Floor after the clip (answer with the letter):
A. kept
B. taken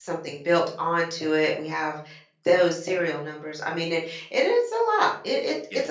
A